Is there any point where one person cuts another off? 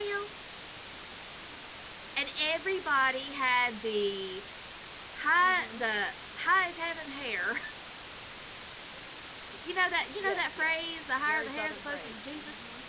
Yes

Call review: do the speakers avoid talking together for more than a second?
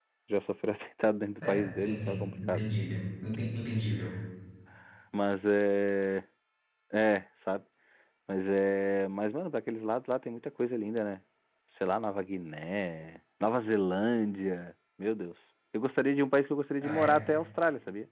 No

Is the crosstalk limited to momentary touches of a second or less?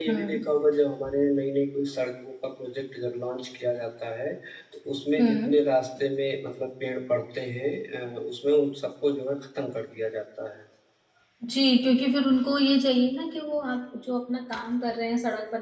Yes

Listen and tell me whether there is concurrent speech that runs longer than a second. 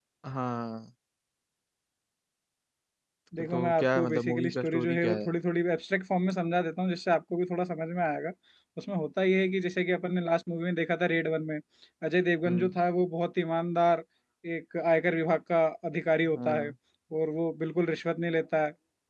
Yes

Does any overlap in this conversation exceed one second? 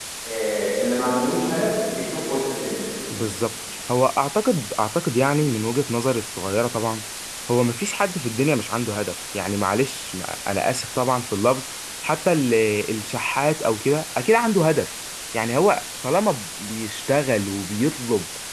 No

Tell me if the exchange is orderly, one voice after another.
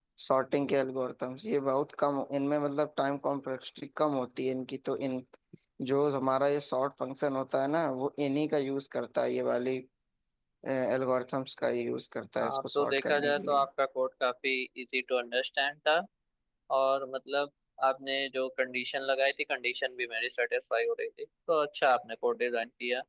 No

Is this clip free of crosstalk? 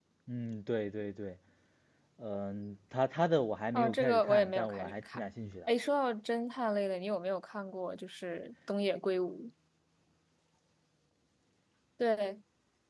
No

